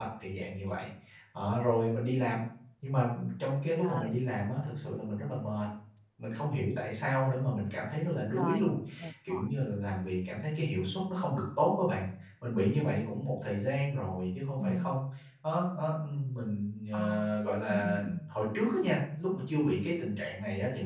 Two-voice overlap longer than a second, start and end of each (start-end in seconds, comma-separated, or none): none